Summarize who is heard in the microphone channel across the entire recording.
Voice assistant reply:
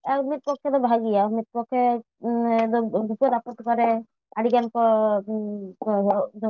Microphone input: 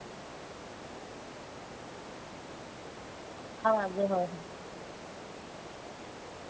user only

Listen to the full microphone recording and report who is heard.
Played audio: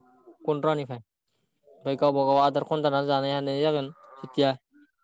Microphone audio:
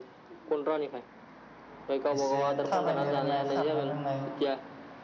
both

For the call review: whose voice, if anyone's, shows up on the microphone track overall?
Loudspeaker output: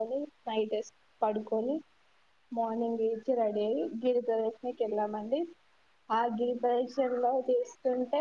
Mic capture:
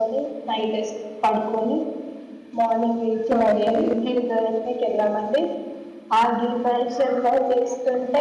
both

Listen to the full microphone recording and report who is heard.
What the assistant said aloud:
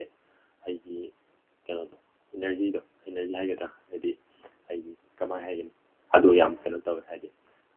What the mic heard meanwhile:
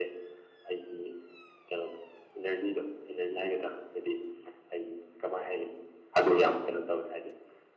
echo only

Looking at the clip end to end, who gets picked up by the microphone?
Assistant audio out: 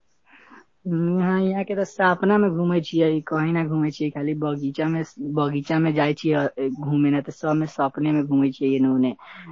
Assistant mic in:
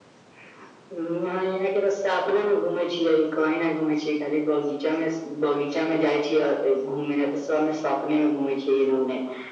echo only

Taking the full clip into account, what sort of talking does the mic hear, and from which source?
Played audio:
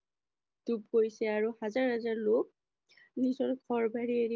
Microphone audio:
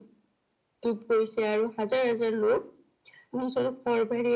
echo only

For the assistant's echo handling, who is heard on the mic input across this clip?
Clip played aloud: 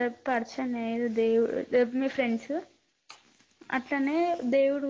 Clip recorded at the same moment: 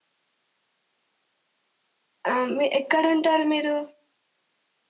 user only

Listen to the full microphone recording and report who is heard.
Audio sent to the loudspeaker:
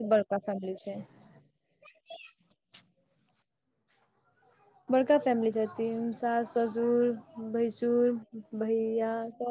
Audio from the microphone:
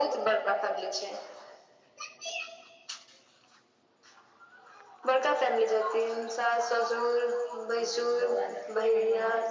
both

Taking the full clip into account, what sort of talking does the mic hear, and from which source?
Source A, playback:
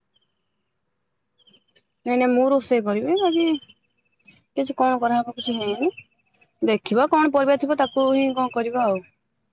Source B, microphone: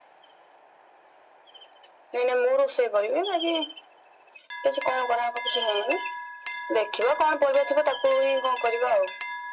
echo only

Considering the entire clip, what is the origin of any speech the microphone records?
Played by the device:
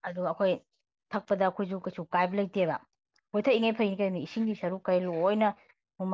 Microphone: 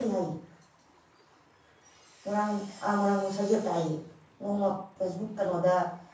user only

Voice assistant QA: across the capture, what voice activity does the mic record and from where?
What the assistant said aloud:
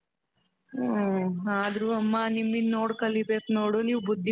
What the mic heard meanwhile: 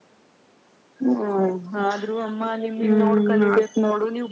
both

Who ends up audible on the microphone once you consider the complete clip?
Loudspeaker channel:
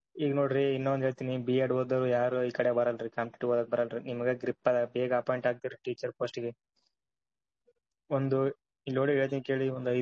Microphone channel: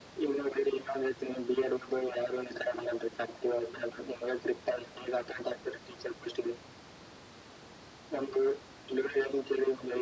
echo only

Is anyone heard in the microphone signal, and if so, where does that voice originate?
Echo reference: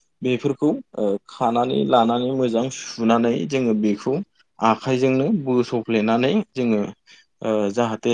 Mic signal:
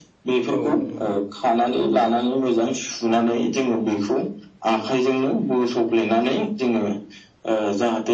both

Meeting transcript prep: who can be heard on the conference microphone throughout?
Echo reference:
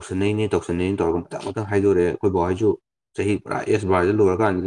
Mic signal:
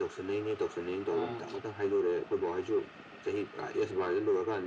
both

